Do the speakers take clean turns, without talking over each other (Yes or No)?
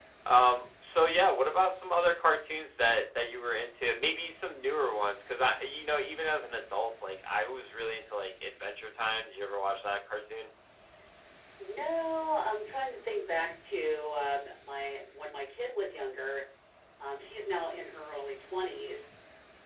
Yes